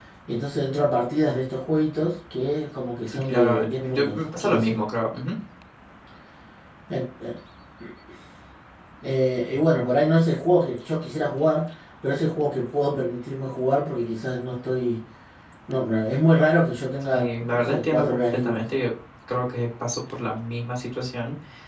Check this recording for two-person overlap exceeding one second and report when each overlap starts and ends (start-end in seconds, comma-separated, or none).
3.1-4.8, 17.1-18.6